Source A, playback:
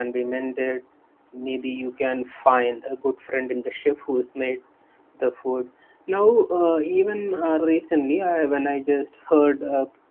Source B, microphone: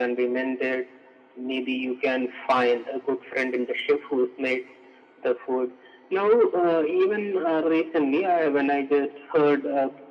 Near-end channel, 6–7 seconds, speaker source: echo only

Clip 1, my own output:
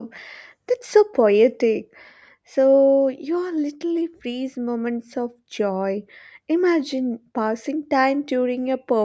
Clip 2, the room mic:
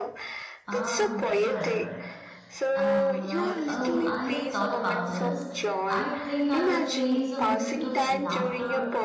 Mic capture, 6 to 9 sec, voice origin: both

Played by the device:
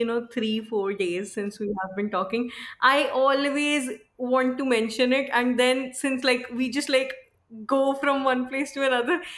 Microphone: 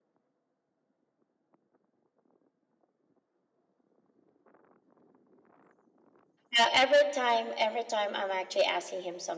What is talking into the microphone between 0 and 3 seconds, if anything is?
neither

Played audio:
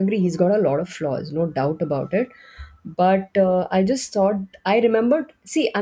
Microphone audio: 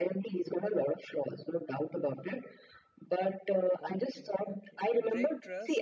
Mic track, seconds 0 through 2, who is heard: echo only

